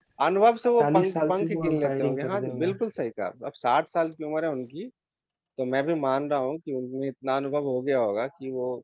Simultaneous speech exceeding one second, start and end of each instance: 0.8-2.8

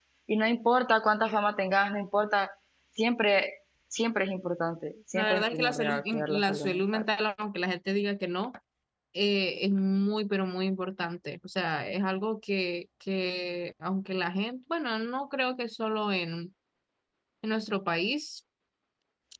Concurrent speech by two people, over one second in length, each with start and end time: 5.1-7.0

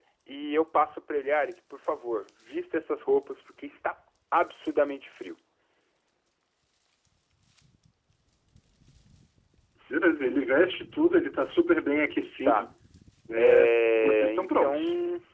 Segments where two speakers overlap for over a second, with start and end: 13.4-14.8

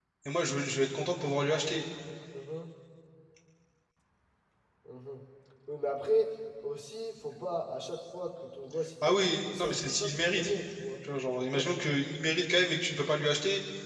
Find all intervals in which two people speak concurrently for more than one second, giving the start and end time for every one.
9.0-10.5

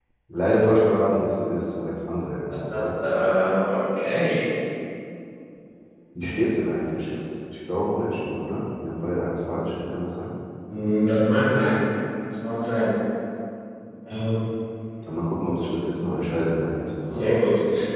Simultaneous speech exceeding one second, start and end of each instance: none

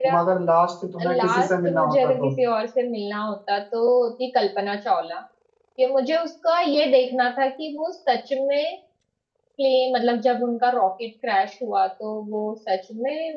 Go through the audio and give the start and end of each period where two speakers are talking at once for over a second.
1.0-2.3

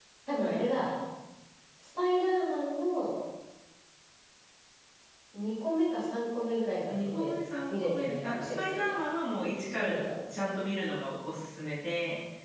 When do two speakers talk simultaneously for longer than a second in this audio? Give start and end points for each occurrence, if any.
7.7-8.9

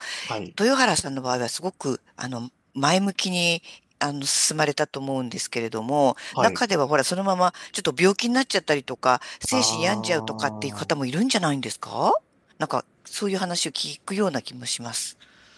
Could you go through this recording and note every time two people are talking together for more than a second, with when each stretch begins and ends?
9.5-10.9

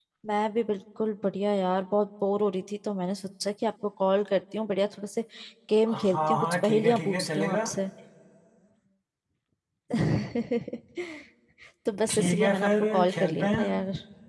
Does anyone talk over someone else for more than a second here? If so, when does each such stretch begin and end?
5.9-7.6, 12.1-13.6

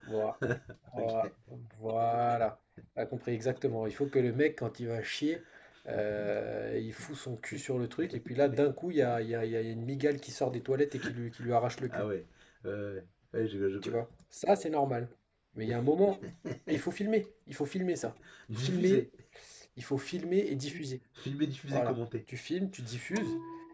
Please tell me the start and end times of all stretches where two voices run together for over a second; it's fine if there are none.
none

